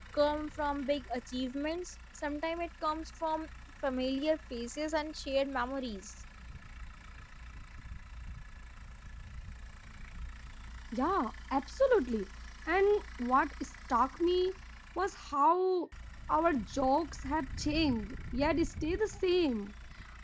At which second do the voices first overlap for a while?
none

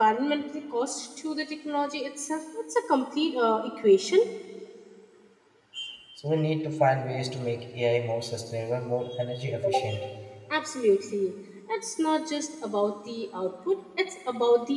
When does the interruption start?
none

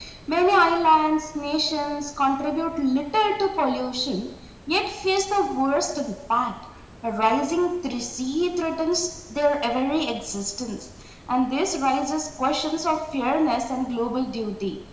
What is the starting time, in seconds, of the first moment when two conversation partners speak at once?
none

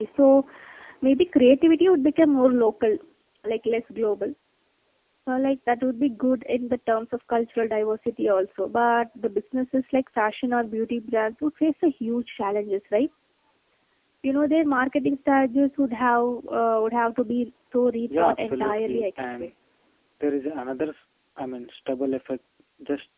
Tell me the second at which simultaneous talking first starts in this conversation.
18.1 s

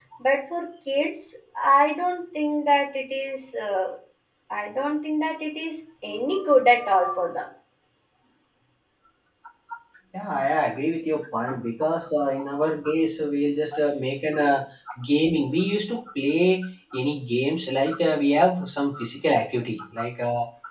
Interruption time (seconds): none

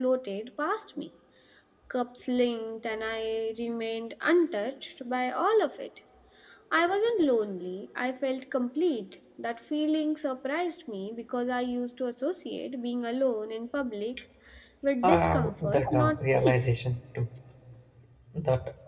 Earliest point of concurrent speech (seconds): 15.0 s

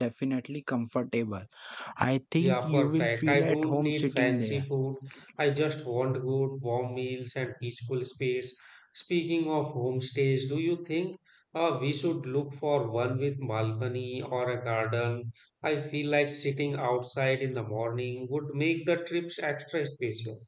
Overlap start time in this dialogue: 2.4 s

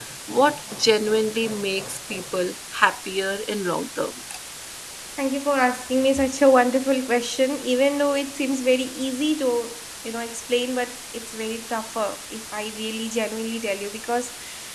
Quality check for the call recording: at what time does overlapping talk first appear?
none

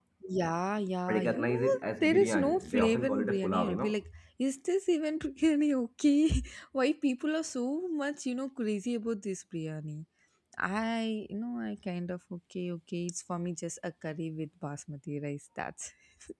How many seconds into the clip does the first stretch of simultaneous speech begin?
1.1 s

